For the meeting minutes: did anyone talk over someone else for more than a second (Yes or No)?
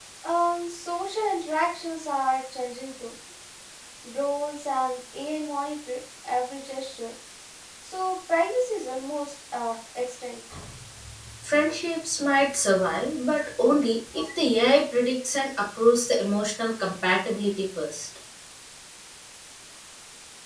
No